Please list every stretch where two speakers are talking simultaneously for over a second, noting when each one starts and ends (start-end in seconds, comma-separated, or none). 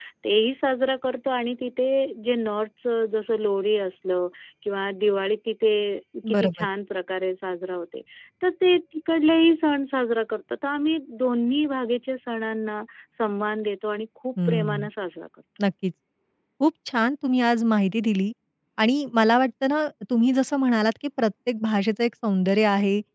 none